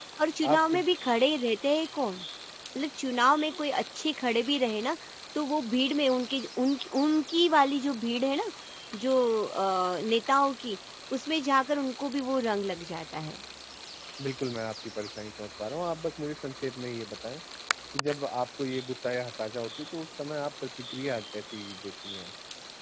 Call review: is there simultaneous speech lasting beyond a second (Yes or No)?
No